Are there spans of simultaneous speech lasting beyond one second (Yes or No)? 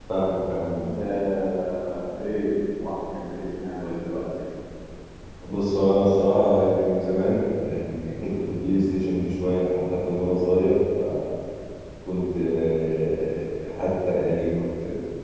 No